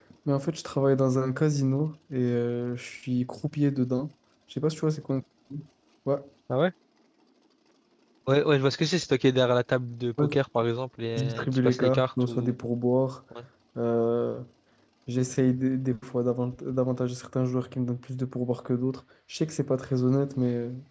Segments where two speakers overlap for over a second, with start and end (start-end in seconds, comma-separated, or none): 11.2-12.5